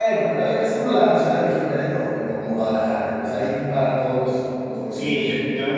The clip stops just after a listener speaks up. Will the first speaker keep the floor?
No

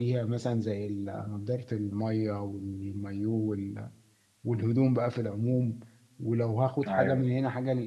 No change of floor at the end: Yes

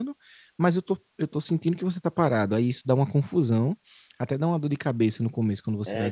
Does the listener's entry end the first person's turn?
Yes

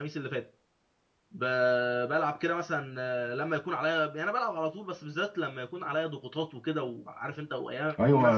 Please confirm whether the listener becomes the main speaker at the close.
Yes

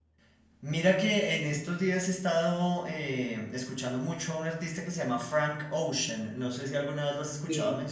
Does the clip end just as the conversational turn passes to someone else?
Yes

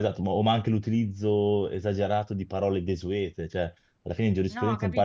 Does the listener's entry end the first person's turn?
No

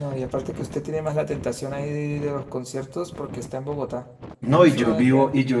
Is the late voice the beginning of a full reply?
Yes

